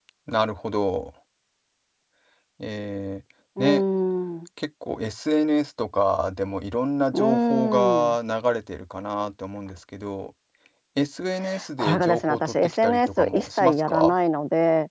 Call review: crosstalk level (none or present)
present